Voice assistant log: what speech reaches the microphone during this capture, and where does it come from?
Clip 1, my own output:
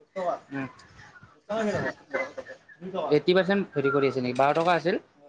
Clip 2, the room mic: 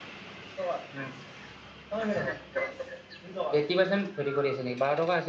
echo only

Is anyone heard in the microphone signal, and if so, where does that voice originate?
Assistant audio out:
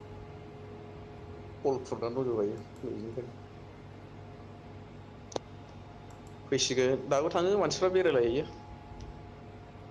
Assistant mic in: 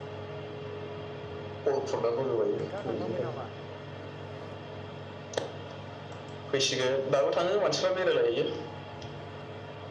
both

